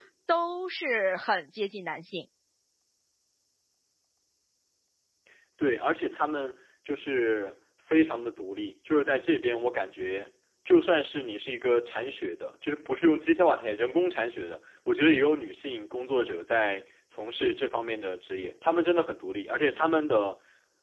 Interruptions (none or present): none